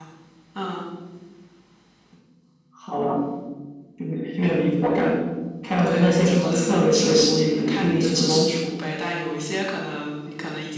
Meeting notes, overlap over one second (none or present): present